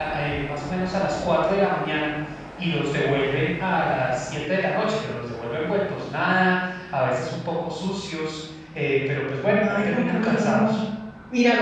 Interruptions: present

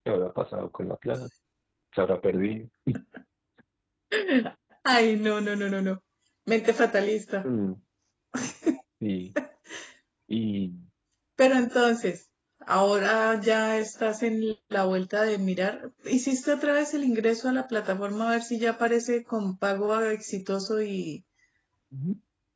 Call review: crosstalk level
none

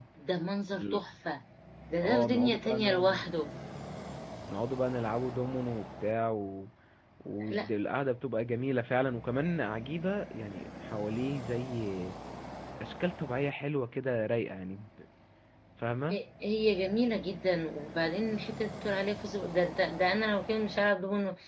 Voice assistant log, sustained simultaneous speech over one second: present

